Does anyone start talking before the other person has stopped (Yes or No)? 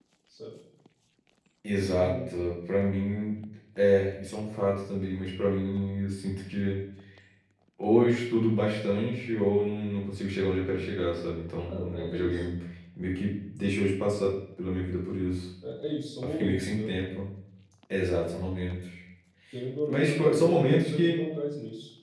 Yes